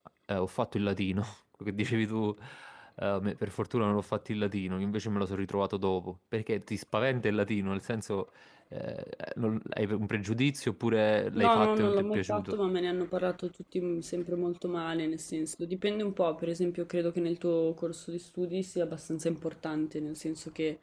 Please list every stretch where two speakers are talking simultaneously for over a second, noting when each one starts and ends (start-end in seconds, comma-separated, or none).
11.3-12.6